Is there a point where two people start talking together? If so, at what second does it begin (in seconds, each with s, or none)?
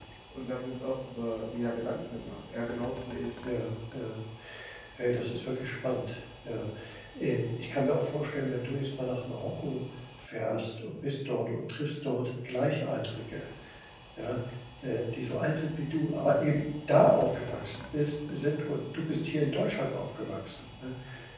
none